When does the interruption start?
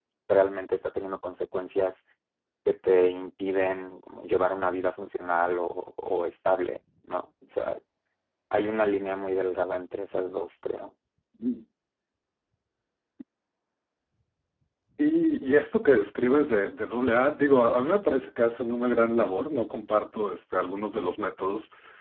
none

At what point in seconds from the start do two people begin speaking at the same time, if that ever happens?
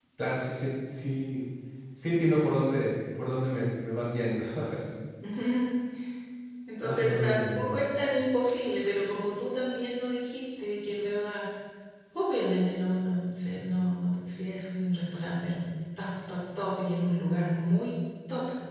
6.8 s

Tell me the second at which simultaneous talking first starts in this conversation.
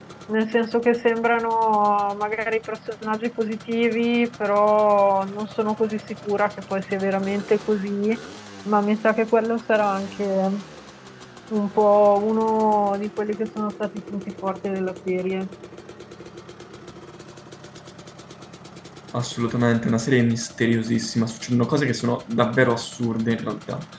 none

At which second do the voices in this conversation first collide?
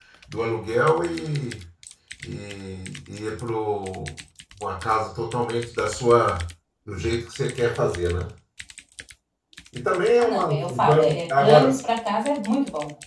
10.2 s

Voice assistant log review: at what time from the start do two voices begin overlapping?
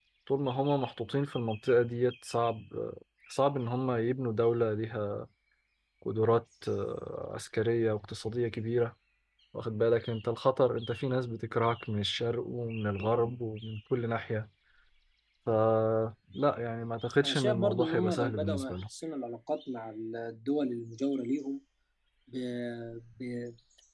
17.2 s

